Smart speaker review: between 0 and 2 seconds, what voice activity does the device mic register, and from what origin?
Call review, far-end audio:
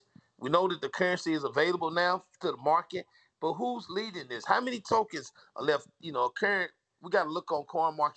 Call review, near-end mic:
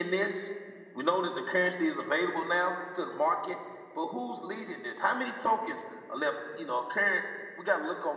echo only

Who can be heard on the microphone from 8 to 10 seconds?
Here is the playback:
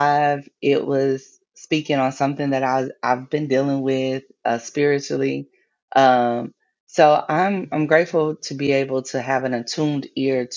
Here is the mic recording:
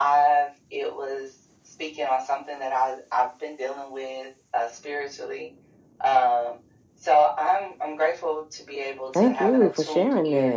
both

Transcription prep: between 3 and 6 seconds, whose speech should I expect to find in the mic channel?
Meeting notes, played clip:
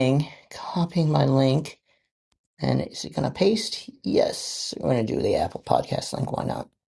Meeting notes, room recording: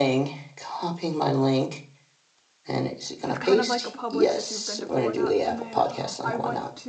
both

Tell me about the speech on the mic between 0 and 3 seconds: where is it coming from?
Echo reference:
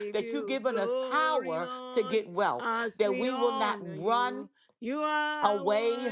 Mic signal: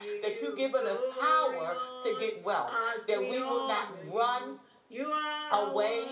echo only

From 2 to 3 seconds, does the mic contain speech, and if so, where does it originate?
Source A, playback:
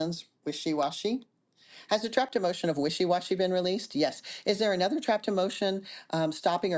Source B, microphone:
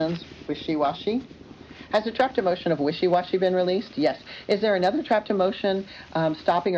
echo only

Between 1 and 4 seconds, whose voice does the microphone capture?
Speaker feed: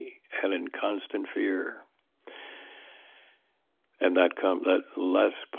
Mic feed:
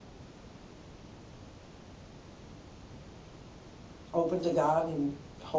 neither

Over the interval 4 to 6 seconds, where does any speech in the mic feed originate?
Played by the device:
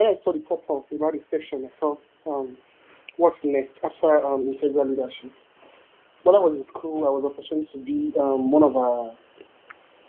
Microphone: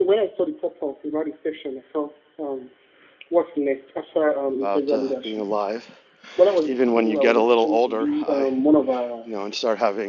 both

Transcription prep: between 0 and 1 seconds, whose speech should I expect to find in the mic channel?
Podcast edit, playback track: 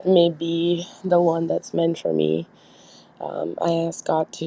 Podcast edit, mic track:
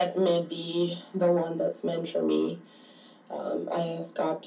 echo only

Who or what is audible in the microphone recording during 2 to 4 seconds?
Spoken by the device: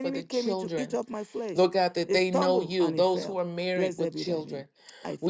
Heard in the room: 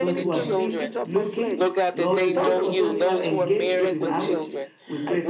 both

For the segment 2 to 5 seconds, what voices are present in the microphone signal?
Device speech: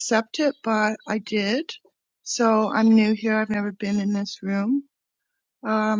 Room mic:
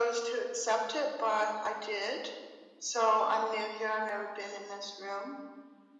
echo only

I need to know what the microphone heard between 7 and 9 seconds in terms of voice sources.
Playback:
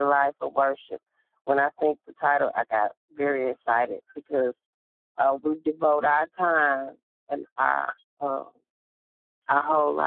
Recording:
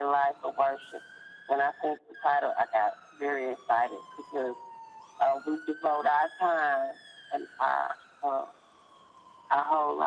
echo only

